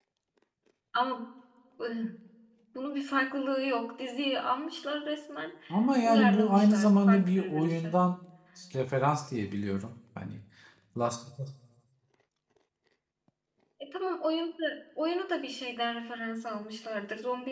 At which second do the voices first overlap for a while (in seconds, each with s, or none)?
6.0 s